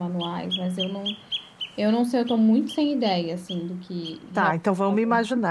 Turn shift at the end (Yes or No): Yes